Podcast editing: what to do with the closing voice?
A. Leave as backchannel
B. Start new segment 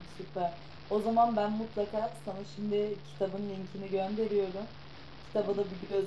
A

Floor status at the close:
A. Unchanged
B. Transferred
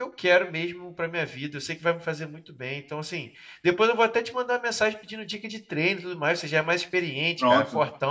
A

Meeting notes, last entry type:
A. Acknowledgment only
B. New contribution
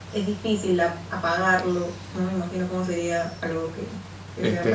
B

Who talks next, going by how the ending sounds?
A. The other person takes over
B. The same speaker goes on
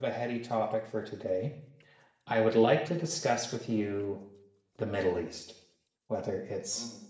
B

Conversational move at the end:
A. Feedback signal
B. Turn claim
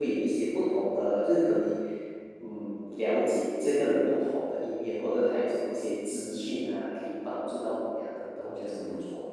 B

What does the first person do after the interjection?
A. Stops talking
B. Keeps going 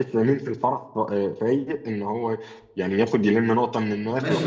A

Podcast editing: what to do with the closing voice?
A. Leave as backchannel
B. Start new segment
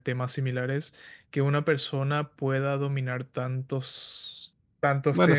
A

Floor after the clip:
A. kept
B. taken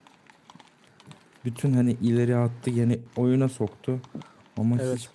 A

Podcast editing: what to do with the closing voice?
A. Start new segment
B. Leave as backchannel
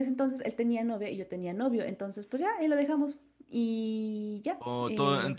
A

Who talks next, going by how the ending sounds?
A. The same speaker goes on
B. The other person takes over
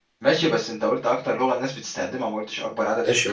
B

